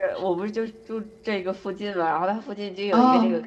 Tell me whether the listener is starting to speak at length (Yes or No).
No